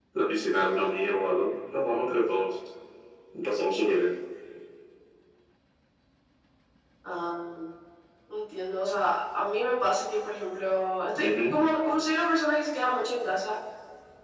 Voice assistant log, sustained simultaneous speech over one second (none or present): none